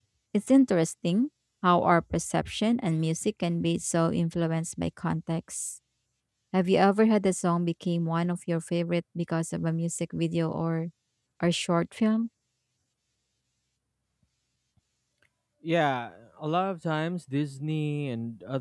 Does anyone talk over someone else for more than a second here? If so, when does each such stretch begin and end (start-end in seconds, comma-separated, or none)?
none